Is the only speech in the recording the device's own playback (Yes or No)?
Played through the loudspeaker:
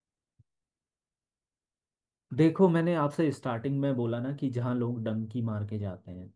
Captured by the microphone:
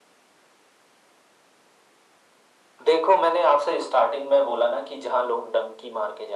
Yes